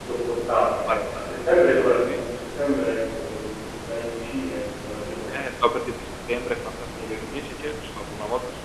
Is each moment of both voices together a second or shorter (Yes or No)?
Yes